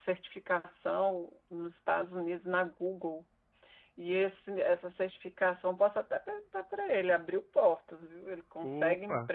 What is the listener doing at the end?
listening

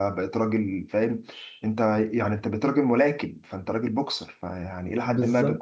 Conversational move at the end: listening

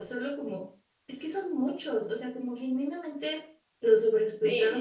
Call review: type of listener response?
listening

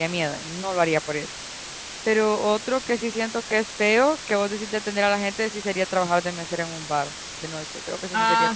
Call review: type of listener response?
taking over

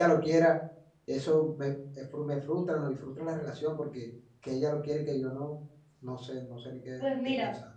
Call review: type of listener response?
taking over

